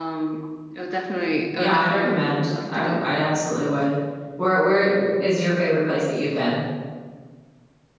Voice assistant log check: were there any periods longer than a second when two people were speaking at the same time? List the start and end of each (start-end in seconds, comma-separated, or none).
1.6-3.1